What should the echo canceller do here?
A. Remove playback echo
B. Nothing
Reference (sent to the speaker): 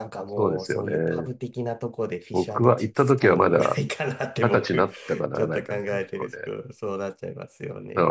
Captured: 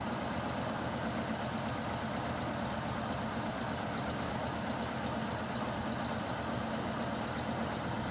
B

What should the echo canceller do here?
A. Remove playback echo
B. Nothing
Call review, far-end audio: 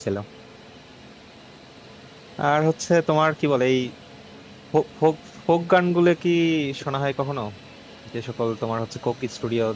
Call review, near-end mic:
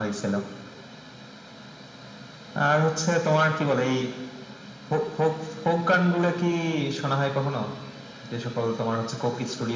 A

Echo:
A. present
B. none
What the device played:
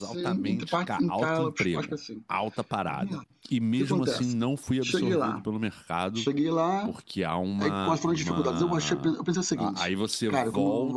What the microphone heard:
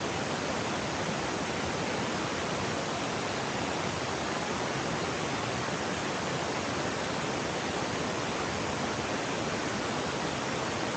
B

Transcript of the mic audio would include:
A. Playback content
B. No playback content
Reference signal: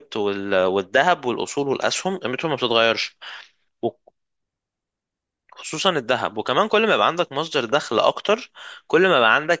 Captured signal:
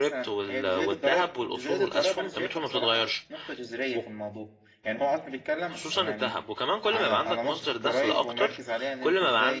A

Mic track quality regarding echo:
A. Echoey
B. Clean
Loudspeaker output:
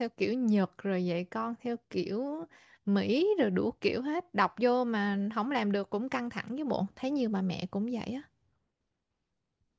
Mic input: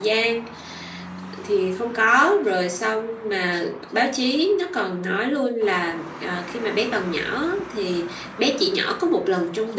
B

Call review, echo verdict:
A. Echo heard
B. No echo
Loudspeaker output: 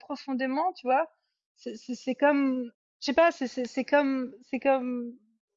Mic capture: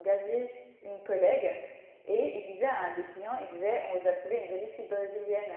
B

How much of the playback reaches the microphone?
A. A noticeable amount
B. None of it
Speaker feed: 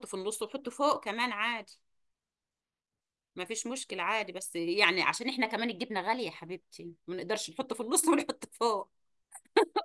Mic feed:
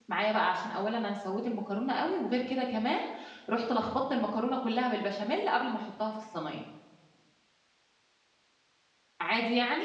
B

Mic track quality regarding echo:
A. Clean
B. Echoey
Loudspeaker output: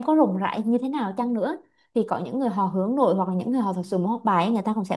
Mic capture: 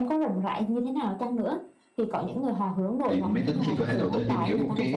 B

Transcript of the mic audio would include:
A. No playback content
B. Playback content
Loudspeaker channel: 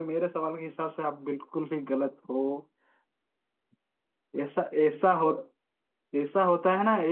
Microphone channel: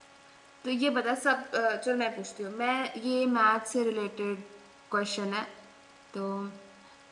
A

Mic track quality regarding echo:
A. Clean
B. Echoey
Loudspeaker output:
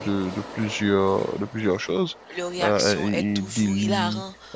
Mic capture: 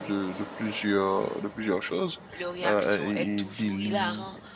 B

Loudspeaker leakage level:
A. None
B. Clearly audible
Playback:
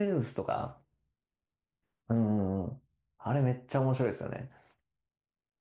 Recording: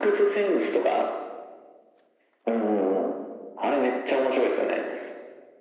B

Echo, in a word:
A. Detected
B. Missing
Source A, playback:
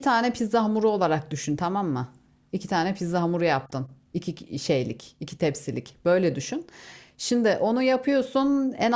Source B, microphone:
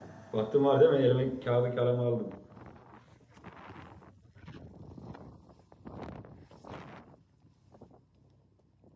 B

